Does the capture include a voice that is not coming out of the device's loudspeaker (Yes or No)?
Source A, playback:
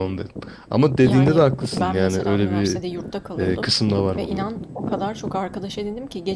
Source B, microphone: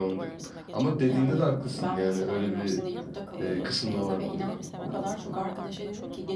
Yes